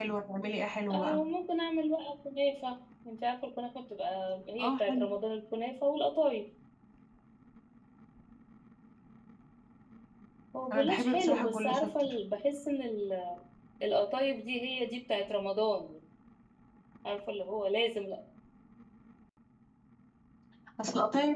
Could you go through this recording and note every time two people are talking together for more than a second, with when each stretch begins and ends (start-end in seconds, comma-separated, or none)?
10.7-12.1